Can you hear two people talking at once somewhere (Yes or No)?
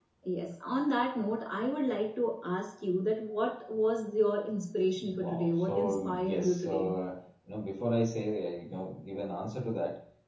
Yes